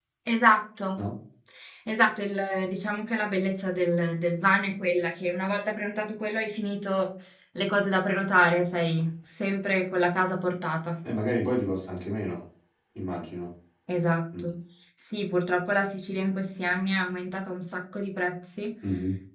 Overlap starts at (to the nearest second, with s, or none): none